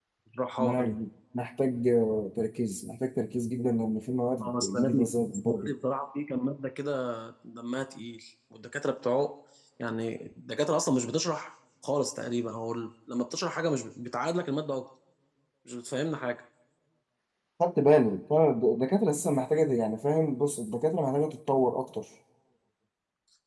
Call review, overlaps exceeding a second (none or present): present